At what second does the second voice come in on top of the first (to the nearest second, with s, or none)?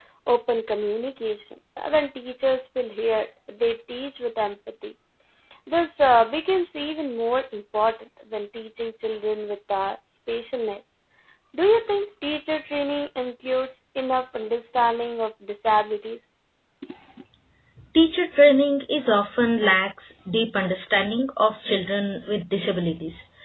none